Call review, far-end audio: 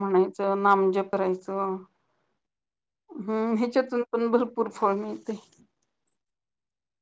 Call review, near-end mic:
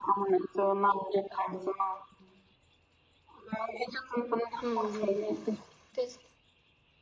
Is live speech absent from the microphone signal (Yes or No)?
No